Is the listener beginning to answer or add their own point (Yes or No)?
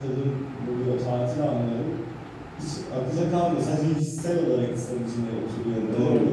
Yes